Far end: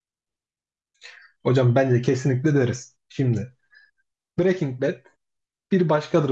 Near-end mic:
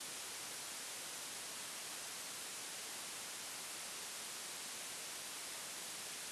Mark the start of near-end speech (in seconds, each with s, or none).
none